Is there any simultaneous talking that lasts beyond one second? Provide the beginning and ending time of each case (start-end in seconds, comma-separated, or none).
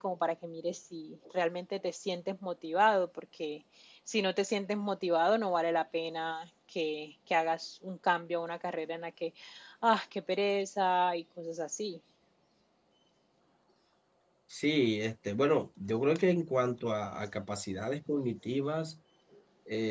none